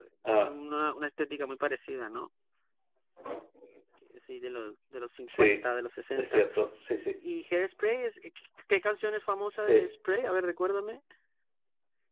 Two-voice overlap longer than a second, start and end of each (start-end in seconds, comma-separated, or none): none